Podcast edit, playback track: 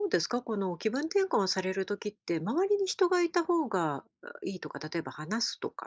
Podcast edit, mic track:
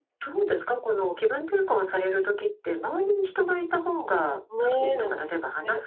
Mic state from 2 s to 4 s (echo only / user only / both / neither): echo only